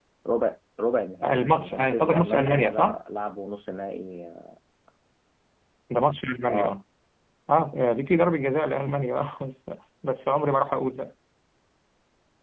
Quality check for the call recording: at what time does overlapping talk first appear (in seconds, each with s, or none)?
1.2 s